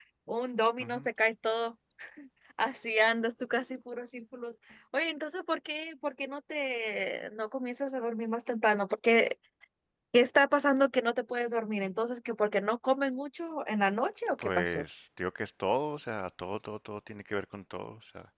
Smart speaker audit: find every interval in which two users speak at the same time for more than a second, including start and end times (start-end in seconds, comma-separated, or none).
none